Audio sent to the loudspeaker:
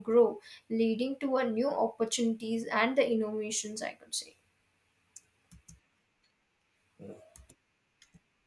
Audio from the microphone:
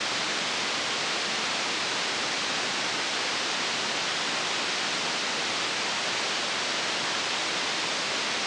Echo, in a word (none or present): none